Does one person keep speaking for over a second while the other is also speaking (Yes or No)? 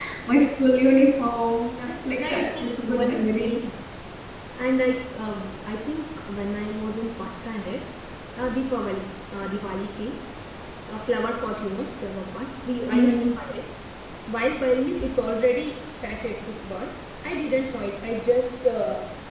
Yes